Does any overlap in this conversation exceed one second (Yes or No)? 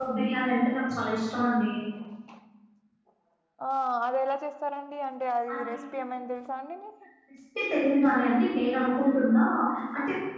No